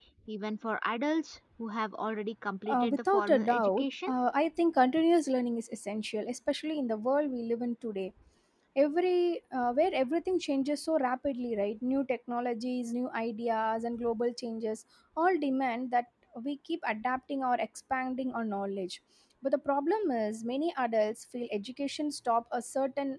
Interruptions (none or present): present